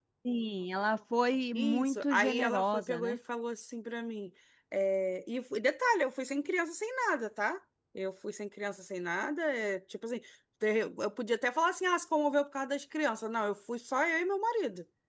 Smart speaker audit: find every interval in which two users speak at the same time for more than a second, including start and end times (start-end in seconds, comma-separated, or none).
1.6-3.2